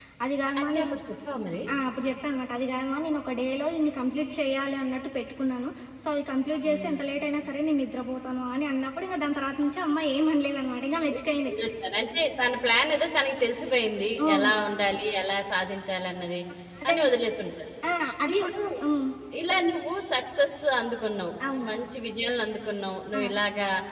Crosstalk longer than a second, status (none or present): none